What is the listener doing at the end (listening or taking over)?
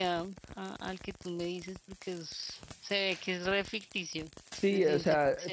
taking over